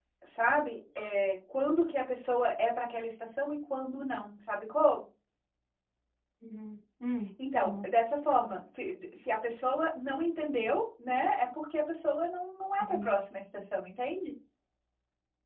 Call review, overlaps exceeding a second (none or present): none